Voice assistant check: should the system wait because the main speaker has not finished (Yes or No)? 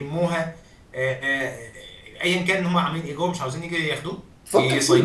No